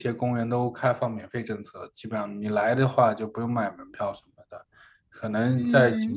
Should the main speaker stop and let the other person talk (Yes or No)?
No